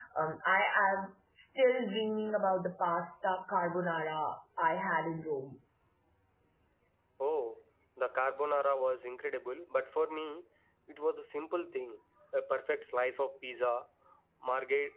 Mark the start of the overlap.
none

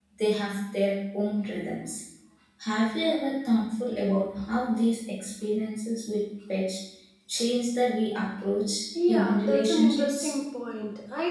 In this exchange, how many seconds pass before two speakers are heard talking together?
9 s

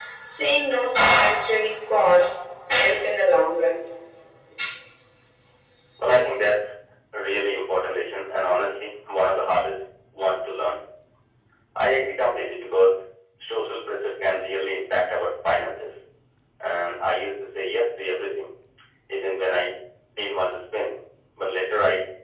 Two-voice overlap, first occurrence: none

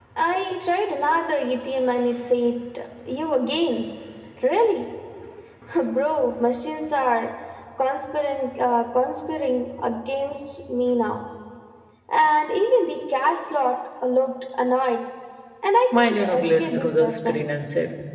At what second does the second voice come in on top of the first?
16 s

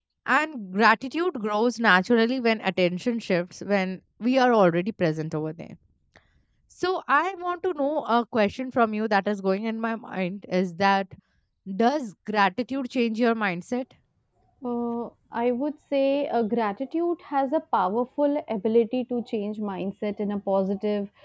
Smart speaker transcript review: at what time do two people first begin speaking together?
none

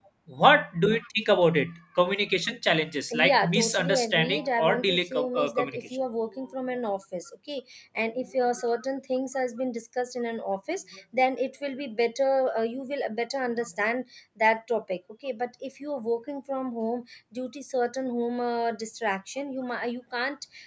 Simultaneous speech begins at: 3 s

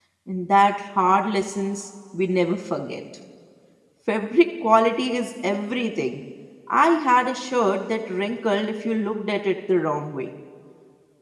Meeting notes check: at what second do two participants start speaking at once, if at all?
none

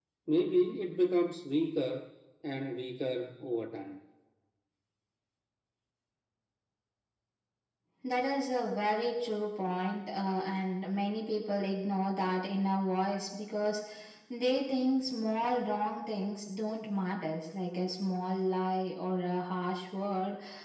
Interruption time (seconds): none

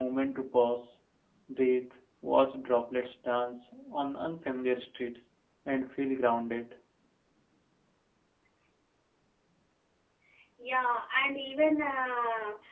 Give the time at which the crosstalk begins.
none

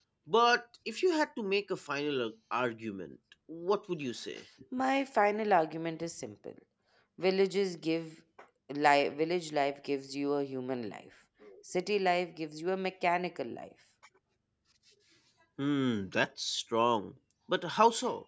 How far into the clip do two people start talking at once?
none

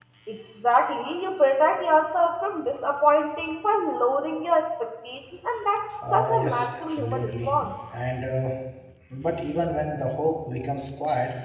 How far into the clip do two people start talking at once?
6 s

